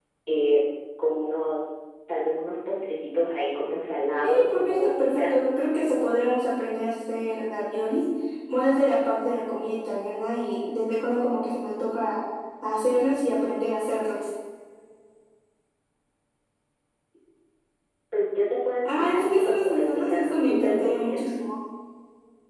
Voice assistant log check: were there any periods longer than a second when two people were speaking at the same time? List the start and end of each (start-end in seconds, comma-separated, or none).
4.2-5.5, 18.9-21.4